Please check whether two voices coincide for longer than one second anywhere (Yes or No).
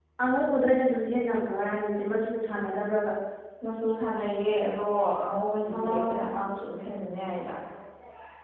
No